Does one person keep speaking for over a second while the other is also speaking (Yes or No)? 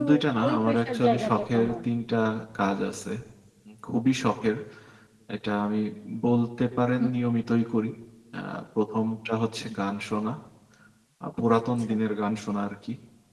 Yes